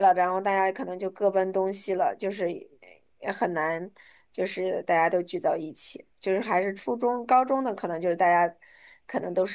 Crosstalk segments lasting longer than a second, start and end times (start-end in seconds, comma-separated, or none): none